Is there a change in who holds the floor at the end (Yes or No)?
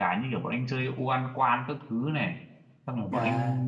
No